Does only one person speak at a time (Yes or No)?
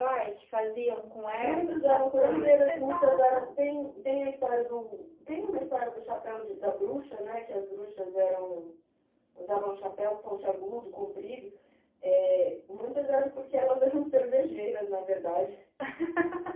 No